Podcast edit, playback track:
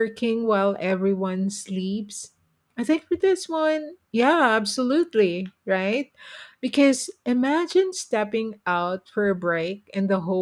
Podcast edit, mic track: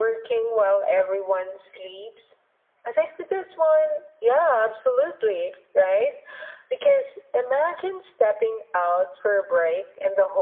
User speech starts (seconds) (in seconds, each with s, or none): none